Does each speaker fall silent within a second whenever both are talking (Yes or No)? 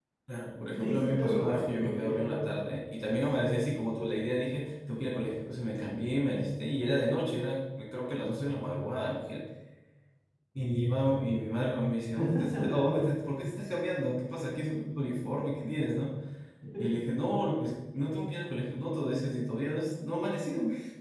No